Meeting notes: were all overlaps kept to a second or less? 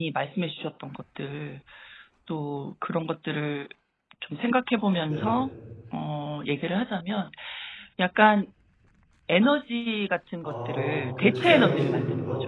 No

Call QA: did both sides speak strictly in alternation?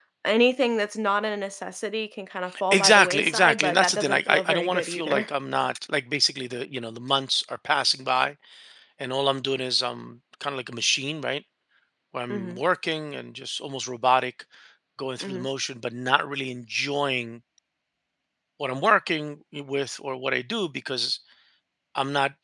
No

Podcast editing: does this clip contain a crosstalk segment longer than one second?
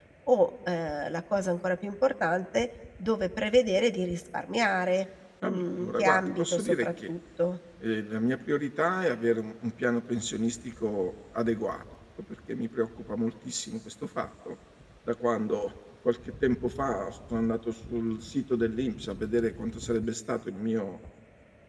Yes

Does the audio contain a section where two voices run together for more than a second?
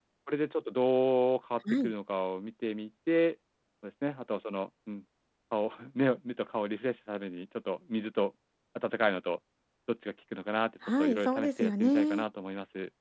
Yes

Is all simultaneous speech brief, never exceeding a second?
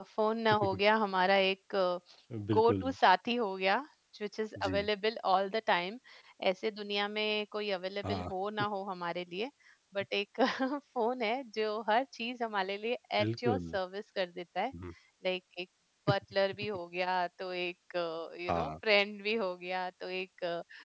Yes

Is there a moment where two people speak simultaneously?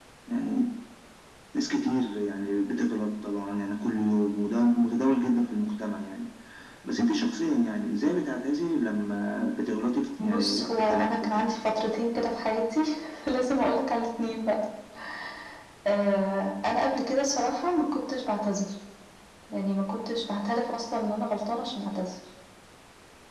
Yes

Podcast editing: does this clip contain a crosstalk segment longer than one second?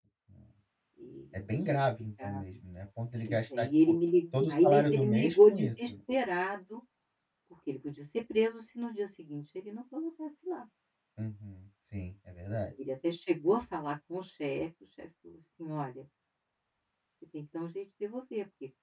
Yes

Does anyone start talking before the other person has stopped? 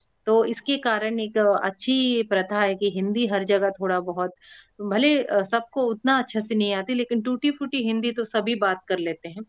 No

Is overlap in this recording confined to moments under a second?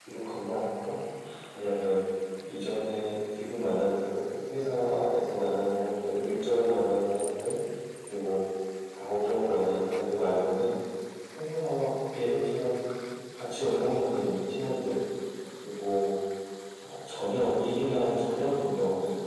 Yes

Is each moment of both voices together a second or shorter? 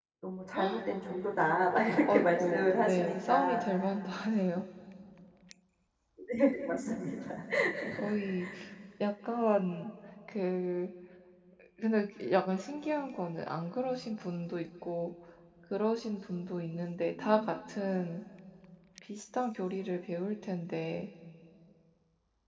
No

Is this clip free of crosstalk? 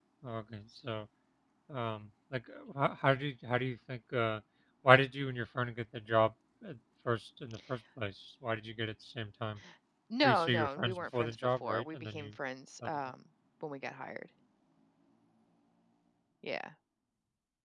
No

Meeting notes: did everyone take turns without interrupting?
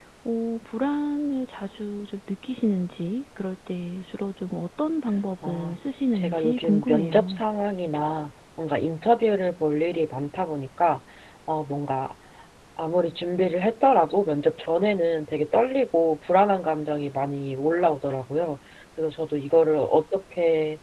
No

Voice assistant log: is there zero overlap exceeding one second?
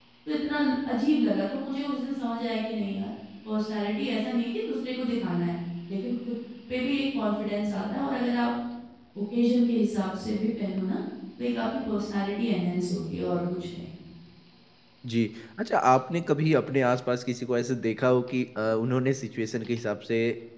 Yes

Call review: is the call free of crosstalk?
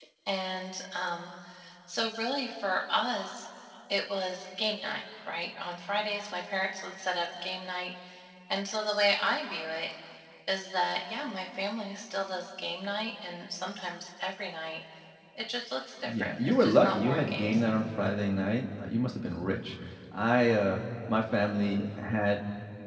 No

